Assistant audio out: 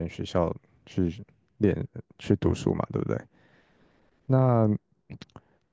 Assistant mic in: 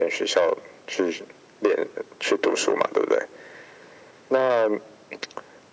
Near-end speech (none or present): none